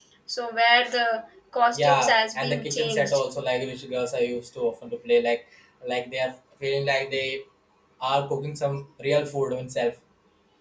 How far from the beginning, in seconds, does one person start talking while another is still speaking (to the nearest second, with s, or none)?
2 s